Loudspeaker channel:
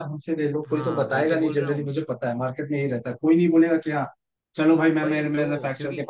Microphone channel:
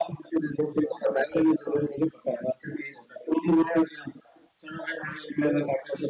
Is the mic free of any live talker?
Yes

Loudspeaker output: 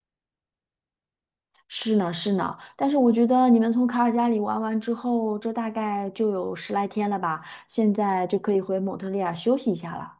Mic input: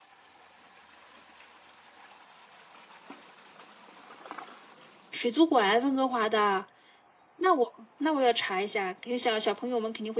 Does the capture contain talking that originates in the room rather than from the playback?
Yes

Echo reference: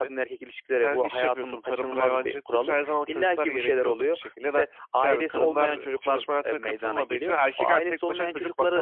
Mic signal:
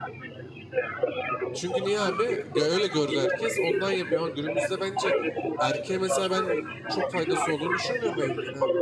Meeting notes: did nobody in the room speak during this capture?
No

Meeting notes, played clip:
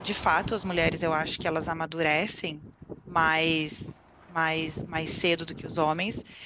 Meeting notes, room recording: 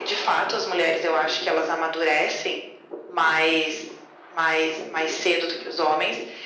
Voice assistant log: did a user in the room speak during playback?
No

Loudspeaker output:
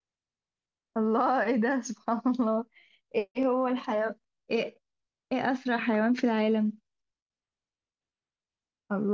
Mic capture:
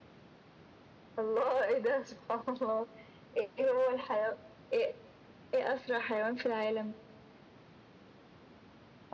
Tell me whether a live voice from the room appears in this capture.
No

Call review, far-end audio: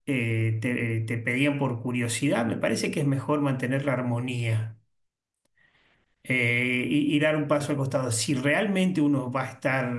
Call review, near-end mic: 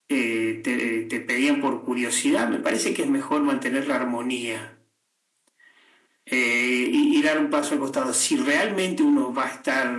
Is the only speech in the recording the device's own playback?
Yes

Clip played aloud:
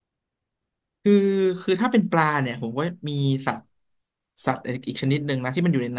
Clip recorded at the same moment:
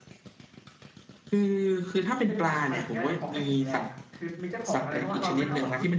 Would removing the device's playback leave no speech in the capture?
No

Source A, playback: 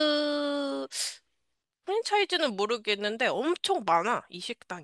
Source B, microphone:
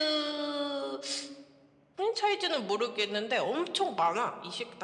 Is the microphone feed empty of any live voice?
Yes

